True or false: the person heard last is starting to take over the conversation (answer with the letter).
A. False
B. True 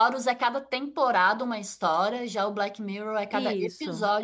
B